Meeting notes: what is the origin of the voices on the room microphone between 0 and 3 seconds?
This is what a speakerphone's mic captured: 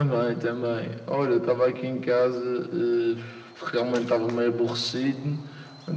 echo only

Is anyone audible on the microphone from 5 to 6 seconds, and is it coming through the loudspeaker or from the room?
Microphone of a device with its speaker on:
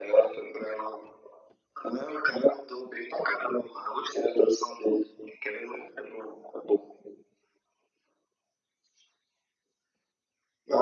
echo only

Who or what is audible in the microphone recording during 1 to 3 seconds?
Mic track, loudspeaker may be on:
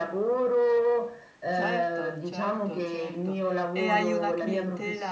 both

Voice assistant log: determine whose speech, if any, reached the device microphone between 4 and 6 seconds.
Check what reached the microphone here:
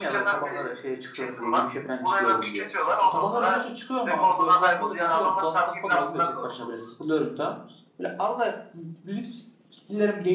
both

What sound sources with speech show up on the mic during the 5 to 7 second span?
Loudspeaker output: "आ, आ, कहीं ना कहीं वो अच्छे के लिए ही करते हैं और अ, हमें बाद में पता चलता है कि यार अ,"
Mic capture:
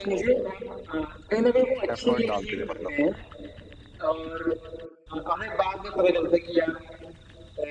echo only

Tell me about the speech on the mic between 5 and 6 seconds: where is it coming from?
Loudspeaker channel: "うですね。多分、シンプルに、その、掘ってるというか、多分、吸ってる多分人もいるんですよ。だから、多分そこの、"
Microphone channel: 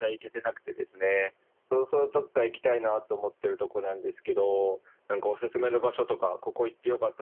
user only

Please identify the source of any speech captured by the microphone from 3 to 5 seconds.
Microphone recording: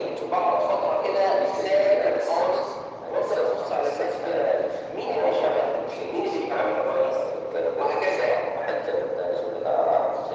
echo only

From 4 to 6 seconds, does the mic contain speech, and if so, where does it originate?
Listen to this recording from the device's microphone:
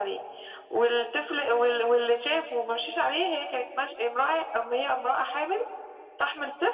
echo only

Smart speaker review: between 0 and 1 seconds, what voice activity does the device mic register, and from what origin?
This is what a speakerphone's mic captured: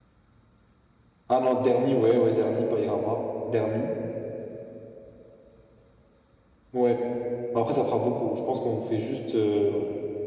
neither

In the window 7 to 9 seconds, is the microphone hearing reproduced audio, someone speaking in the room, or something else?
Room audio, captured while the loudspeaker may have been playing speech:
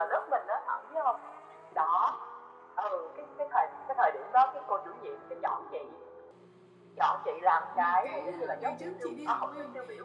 both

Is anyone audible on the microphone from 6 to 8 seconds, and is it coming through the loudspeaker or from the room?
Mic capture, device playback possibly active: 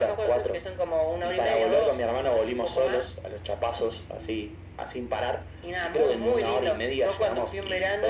echo only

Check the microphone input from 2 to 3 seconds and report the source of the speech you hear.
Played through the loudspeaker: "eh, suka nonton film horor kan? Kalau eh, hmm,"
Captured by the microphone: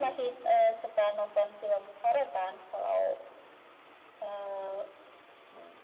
echo only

